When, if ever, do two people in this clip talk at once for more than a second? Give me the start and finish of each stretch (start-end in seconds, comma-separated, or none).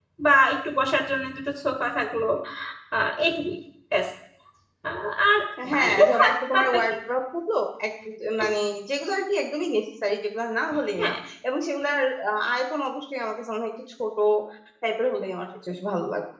5.7-6.9